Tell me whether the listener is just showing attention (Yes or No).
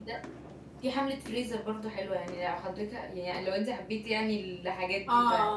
No